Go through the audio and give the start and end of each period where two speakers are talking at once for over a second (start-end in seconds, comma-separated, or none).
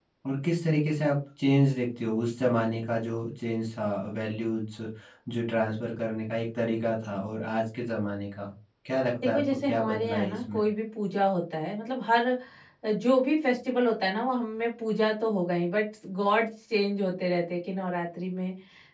9.2-10.6